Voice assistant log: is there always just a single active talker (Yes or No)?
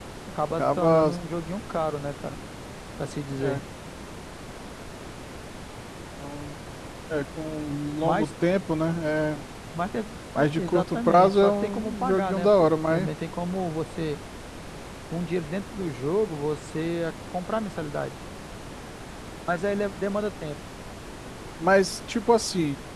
No